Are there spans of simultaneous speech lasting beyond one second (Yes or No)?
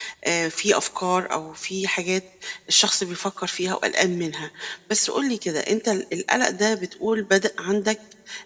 No